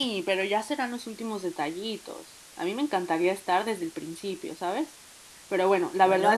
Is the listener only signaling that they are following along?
Yes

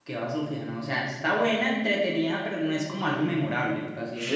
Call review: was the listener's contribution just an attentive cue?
No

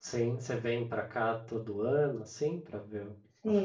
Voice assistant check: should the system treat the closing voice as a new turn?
Yes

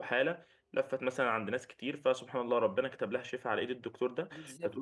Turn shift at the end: No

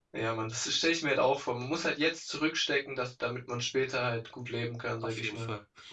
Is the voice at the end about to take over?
Yes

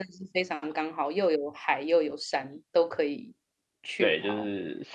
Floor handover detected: Yes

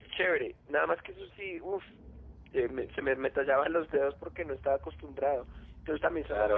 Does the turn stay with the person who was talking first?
No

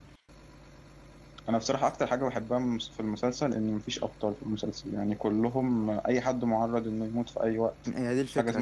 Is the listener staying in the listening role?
No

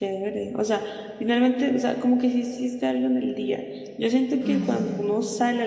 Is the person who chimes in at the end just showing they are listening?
Yes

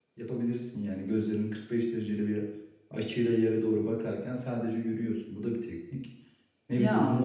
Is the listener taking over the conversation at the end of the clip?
No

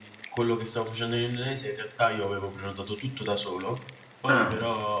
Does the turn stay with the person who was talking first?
Yes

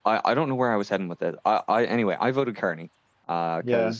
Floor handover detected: No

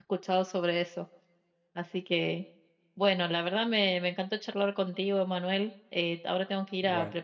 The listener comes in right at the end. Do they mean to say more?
No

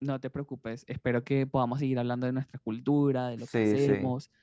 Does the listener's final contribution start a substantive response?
Yes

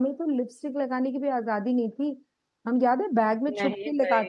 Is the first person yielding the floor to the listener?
No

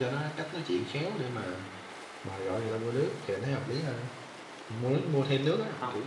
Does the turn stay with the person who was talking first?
Yes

